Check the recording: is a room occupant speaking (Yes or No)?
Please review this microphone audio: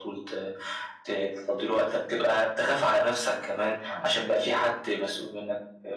No